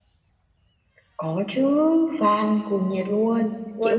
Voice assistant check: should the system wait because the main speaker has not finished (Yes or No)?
No